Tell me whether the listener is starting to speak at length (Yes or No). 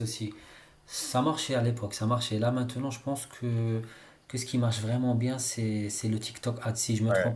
Yes